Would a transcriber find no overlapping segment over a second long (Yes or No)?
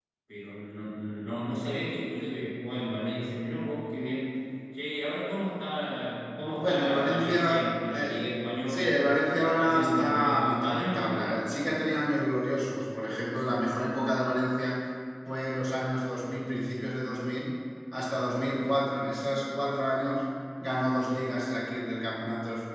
No